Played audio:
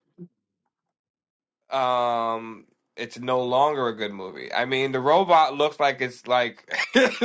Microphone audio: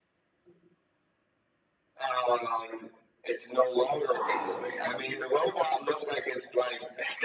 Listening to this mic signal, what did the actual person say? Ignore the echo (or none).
Wow, Richie.